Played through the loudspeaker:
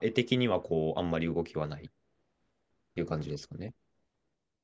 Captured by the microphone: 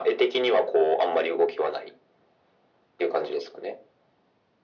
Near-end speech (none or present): none